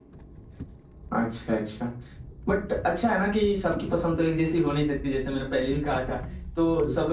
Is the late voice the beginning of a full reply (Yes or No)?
No